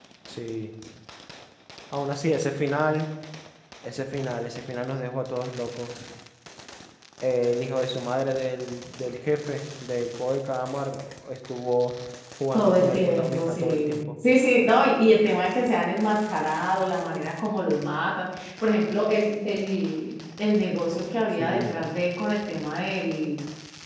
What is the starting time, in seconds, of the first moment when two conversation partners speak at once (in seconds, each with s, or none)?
12.5 s